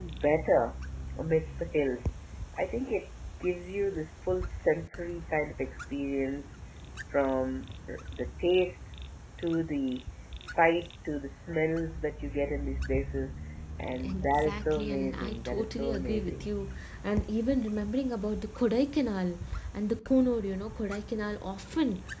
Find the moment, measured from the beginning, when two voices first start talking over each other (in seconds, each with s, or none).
13.9 s